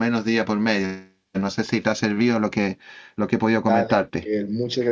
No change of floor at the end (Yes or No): No